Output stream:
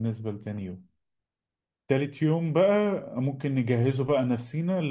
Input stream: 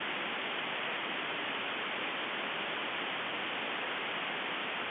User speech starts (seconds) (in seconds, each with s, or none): none